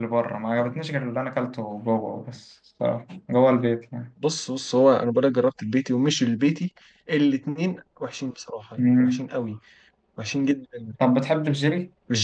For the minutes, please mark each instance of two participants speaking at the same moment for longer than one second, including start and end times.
none

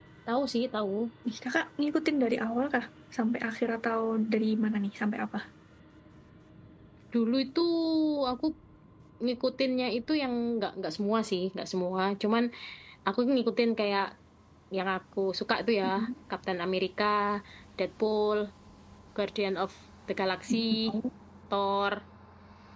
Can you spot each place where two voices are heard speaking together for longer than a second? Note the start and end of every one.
none

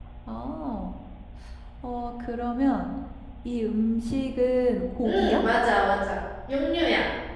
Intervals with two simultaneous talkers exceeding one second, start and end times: none

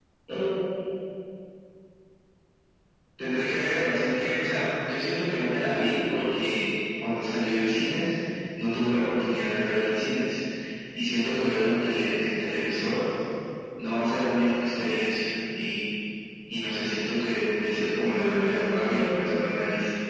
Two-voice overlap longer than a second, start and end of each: 18.1-19.5

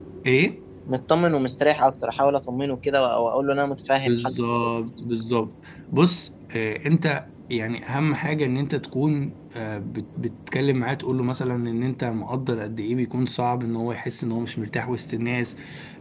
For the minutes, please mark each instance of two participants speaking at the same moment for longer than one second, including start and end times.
none

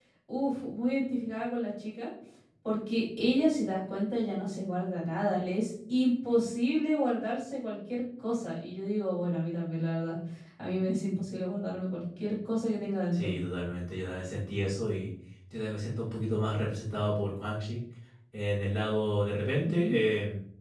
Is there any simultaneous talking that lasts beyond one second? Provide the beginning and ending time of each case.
none

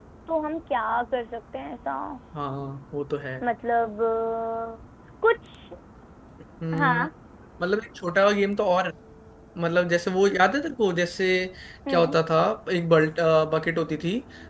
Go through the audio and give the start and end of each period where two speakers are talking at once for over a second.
none

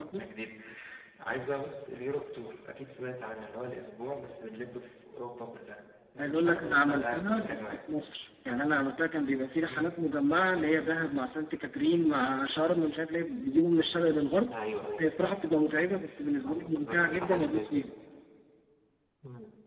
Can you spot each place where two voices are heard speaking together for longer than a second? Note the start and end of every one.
6.2-7.8, 16.4-17.9

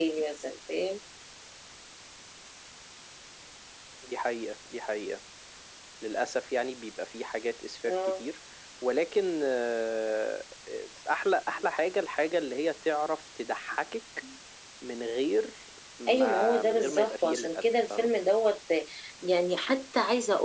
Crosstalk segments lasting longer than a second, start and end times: 16.1-18.1

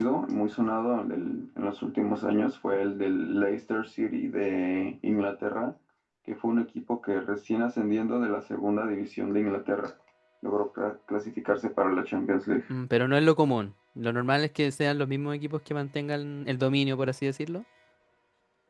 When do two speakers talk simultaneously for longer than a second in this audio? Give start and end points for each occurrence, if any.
none

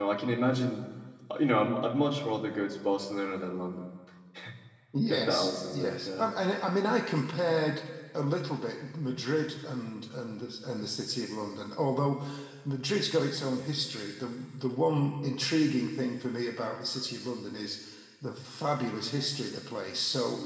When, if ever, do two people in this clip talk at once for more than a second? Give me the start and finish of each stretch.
5.1-6.3

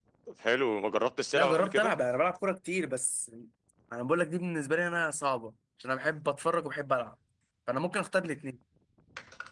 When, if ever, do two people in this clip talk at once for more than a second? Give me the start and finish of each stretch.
none

